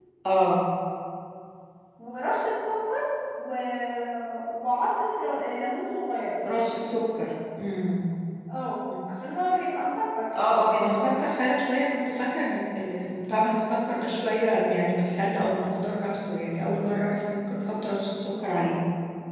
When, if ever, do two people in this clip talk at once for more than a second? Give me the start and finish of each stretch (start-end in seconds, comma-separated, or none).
none